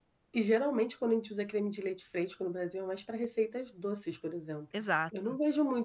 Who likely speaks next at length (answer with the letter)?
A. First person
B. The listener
A